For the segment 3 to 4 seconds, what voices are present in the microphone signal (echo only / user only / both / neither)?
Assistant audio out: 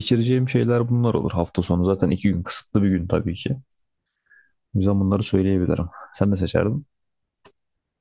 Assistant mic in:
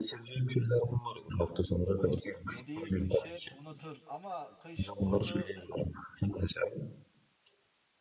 both